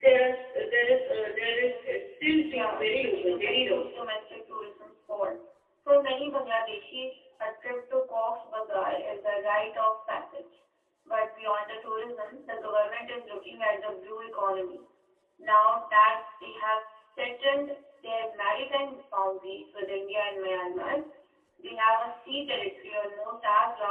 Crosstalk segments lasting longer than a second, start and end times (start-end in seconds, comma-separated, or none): 2.4-3.8